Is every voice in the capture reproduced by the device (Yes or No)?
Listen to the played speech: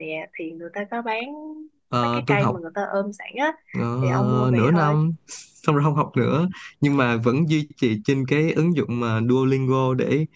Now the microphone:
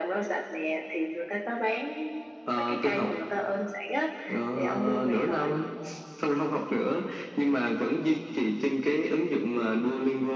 Yes